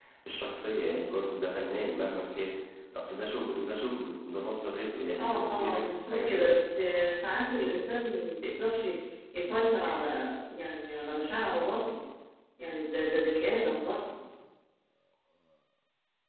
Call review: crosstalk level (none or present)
present